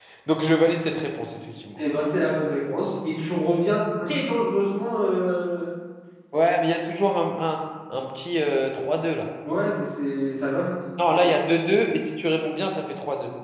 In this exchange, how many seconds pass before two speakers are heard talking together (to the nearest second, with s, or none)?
none